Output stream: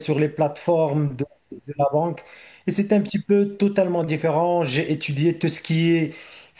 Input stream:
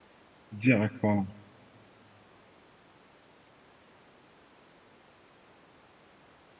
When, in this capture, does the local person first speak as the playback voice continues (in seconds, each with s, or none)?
0.6 s